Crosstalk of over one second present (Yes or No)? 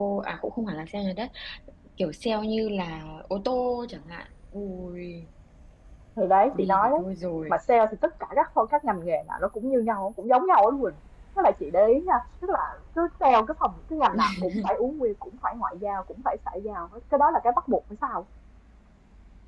No